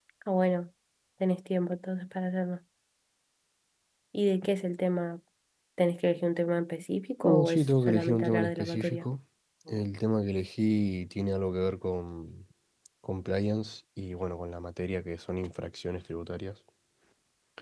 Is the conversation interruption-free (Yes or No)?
No